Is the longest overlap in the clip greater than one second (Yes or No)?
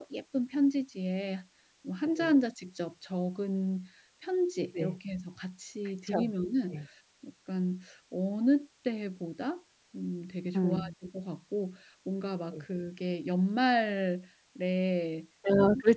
No